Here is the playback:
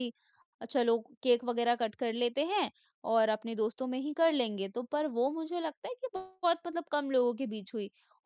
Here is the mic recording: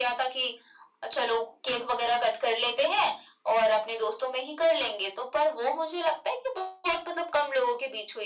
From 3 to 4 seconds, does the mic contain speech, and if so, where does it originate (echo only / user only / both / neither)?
echo only